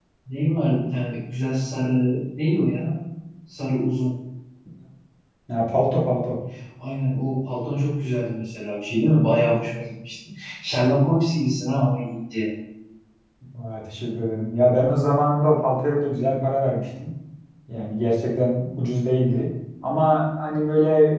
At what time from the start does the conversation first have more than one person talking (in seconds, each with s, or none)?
none